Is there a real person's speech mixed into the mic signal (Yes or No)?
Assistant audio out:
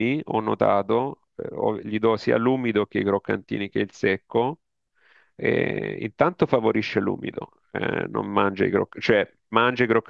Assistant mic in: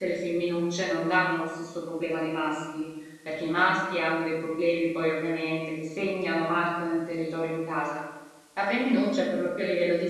Yes